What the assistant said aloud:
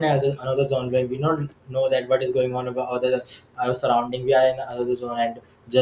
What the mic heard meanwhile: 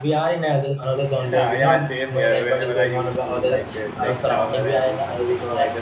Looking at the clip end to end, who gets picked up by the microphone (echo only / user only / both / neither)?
both